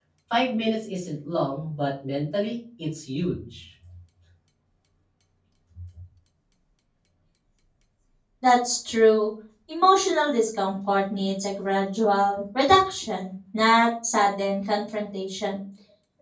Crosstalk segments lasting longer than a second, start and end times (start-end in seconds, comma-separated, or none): none